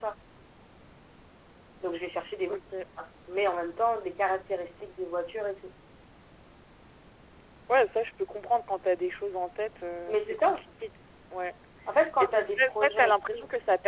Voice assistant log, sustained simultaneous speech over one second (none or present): present